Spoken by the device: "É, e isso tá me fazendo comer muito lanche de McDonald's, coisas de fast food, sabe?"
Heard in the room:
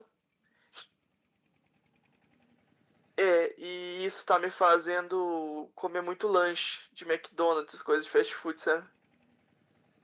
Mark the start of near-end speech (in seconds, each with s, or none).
none